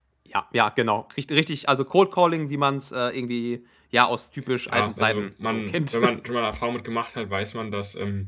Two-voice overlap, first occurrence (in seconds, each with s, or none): 4.7 s